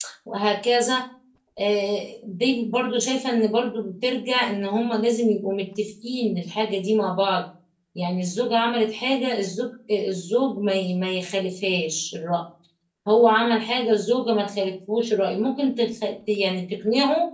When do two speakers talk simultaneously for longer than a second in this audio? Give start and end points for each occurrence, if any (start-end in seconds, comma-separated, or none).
none